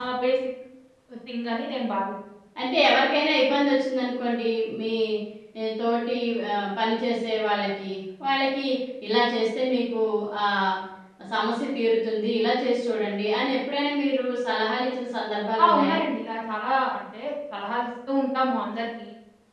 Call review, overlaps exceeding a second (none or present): none